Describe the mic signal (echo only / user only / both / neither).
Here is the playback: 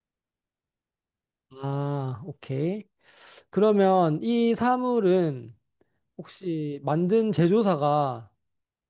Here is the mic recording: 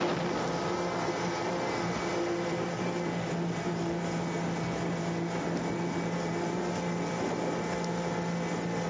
neither